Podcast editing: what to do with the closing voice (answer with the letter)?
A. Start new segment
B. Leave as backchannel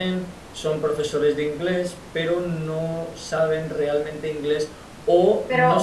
B